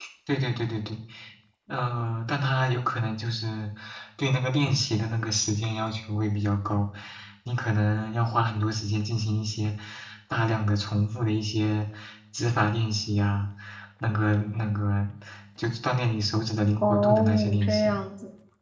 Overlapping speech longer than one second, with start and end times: 16.8-18.0

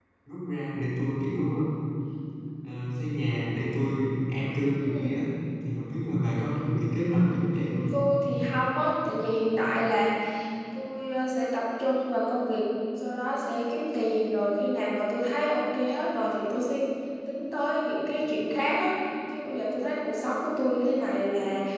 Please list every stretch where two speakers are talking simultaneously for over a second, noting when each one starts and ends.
none

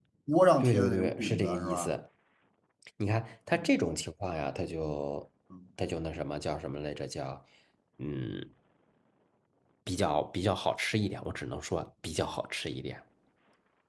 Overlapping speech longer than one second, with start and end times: 0.6-2.0

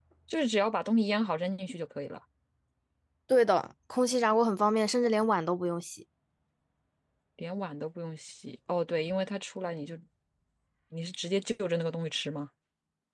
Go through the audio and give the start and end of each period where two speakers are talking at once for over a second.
none

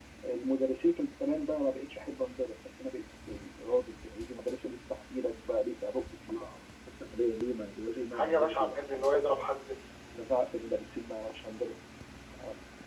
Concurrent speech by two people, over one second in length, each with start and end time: 8.1-9.4

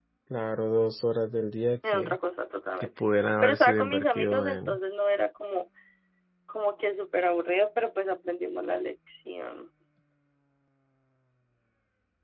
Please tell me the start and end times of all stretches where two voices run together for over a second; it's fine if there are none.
3.4-4.8

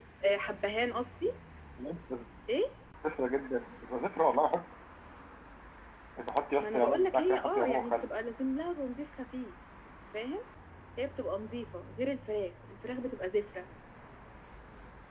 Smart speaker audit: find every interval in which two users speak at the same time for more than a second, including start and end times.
6.6-8.2

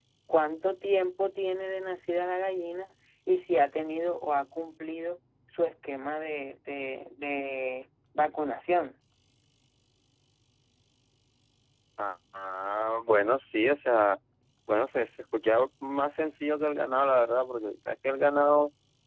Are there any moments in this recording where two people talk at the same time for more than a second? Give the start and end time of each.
none

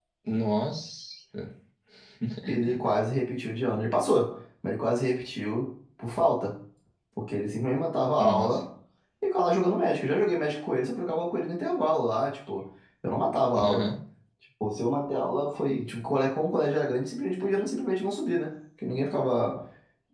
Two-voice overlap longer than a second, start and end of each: none

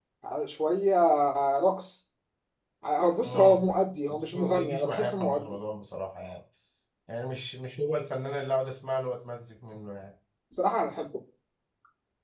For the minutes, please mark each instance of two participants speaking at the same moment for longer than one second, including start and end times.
4.1-5.6

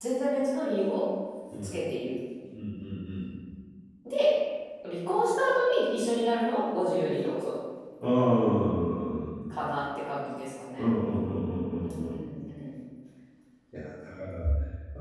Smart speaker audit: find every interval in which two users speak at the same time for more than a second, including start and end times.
none

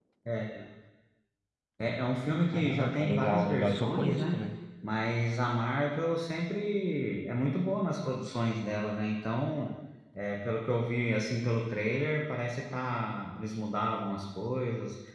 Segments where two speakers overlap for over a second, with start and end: 2.5-4.4

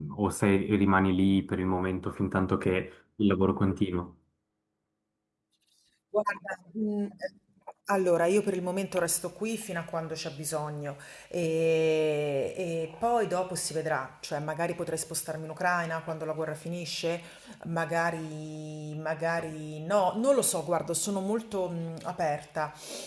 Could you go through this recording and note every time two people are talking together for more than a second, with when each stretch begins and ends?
none

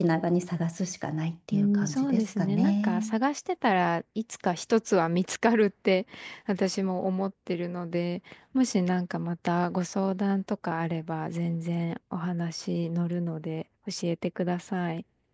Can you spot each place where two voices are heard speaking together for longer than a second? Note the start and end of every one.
1.5-3.1

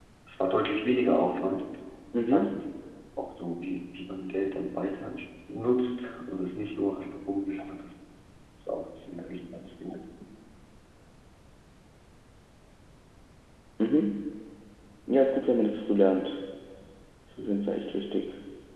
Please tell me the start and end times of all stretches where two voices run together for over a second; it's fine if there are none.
none

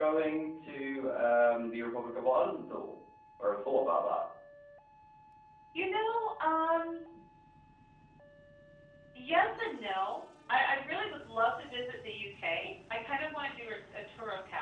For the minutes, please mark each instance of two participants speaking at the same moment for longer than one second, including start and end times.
none

